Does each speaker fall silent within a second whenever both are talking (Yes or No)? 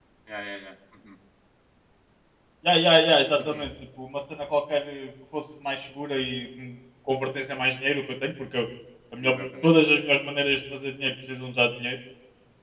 Yes